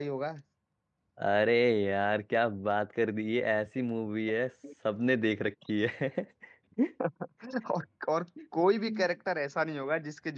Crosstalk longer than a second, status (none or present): none